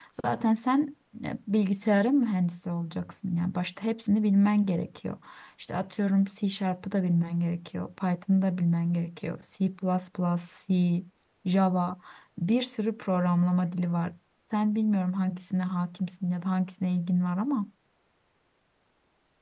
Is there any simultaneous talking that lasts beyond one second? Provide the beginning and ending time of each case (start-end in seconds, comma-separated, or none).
none